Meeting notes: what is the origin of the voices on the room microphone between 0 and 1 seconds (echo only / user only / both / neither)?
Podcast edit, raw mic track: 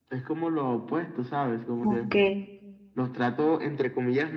echo only